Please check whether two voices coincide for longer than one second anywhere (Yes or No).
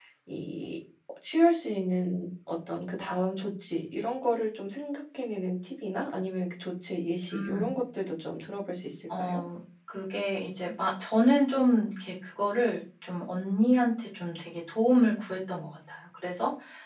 No